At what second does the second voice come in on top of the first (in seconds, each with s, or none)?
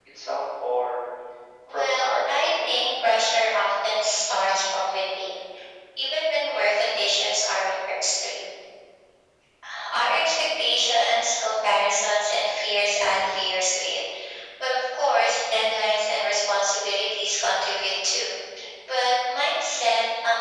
1.7 s